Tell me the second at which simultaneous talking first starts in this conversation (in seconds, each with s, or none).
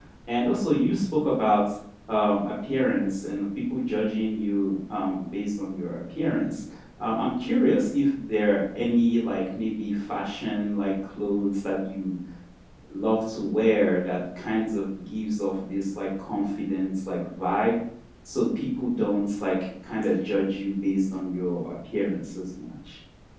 none